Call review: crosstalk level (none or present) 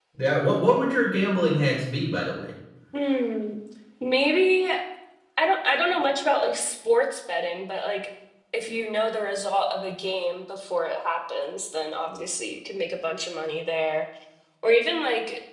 none